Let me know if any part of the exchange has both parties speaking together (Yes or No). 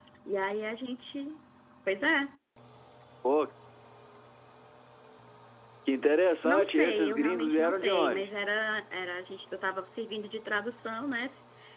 Yes